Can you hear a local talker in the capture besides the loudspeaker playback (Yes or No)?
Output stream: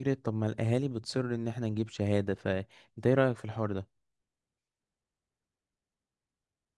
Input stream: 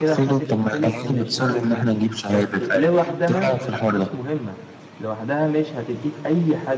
Yes